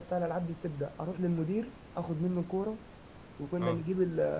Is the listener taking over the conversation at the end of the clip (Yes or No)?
No